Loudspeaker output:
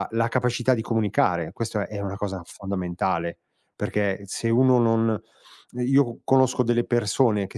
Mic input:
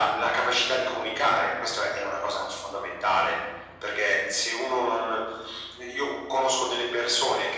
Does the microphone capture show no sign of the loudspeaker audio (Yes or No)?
No